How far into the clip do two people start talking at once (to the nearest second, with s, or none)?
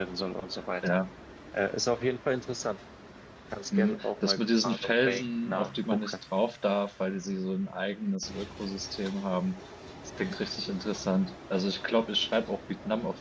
4 s